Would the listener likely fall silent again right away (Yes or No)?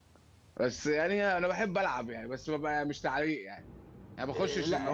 No